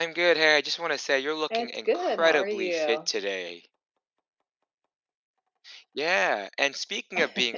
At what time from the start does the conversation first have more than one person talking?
1.5 s

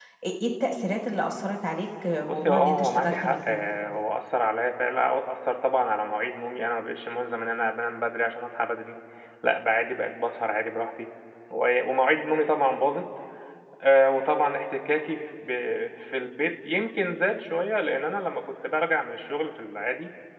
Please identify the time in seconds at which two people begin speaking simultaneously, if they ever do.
2.3 s

